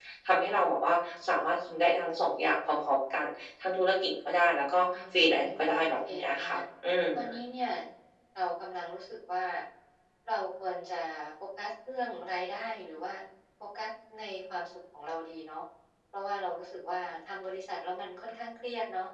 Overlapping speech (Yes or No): Yes